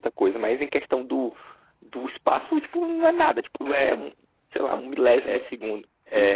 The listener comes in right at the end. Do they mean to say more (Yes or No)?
Yes